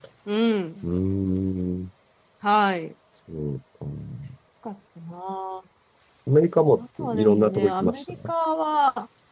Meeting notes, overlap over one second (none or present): present